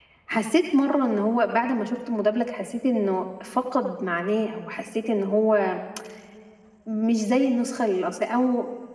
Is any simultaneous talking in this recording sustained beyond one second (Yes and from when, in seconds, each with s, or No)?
No